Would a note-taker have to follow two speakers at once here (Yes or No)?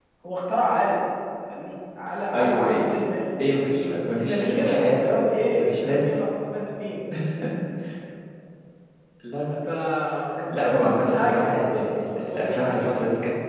Yes